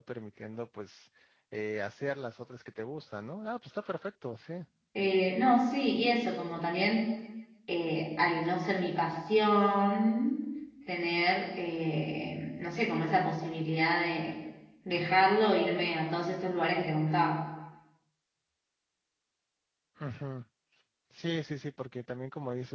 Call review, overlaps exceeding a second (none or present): none